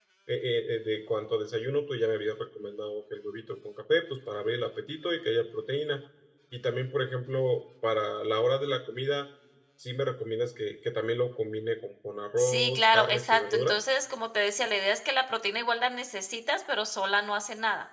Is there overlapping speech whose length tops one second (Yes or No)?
Yes